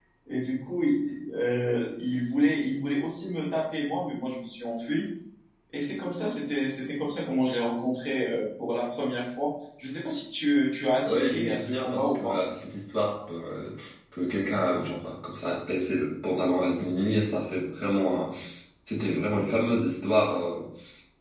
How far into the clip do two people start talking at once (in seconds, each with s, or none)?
11.0 s